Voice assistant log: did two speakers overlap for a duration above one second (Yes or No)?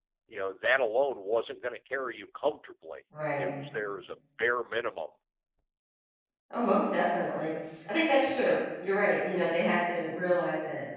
No